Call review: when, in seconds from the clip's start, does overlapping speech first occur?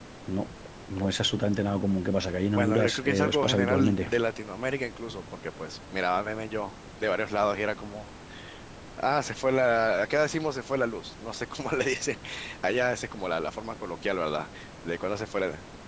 3 s

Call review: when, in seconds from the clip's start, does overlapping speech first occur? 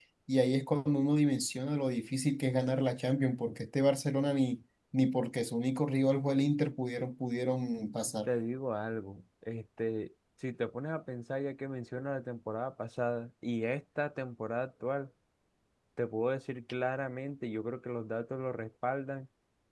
none

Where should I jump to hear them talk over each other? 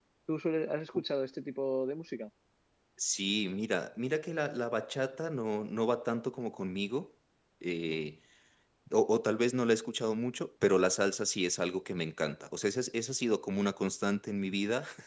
none

